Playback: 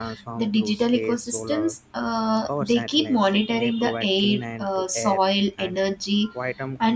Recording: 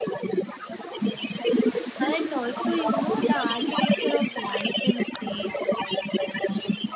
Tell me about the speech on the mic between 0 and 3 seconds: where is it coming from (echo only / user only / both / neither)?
both